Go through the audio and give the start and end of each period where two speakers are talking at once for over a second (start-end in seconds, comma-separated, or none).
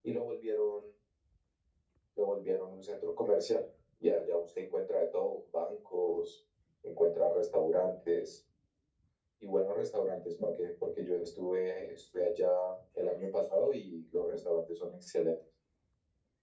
none